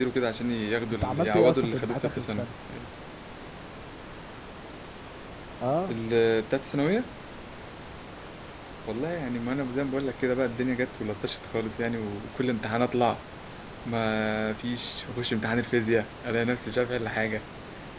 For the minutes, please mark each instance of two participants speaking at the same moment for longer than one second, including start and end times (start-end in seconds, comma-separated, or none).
1.0-2.4